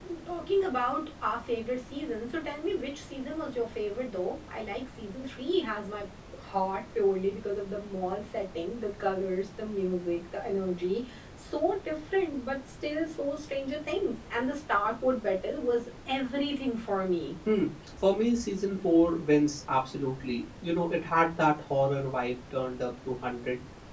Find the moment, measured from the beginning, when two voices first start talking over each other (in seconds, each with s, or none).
none